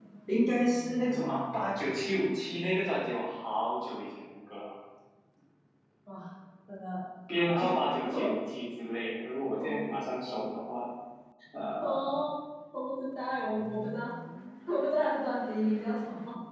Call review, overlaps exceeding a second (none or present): none